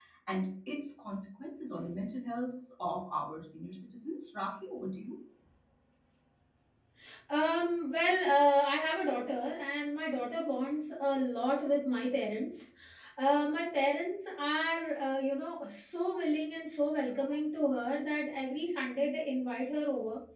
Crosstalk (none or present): none